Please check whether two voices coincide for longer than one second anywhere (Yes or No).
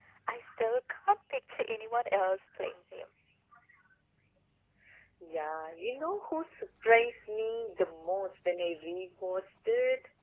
No